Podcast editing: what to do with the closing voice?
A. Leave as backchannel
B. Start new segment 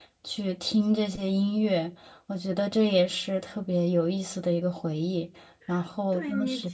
B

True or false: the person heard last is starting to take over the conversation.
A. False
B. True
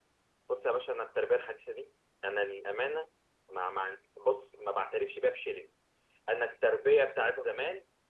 A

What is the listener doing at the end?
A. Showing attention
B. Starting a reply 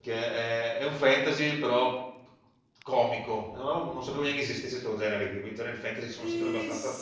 B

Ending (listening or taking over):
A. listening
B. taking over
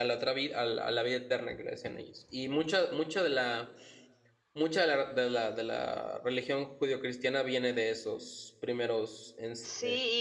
B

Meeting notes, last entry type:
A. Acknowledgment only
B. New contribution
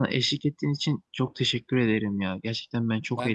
A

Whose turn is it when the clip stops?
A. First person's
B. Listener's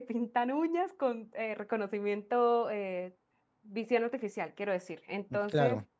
A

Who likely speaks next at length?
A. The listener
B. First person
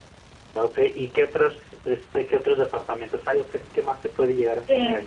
A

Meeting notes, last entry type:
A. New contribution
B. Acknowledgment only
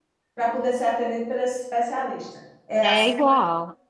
A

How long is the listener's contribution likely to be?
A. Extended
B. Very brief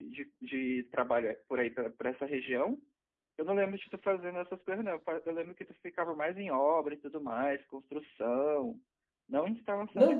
A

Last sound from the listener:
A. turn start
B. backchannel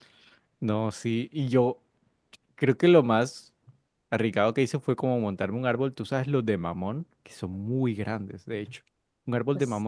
B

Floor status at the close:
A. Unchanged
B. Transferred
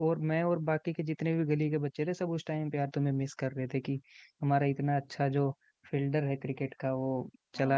A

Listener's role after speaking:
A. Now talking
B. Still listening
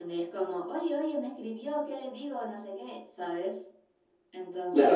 A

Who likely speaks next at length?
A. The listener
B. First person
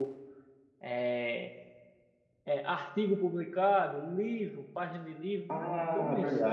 A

